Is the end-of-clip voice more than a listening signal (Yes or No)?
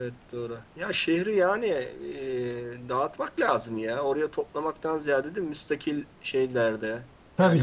Yes